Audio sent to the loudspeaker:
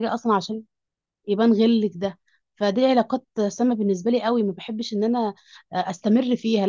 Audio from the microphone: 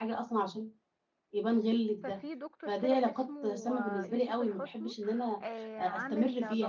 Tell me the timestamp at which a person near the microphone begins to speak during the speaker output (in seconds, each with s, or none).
2.0 s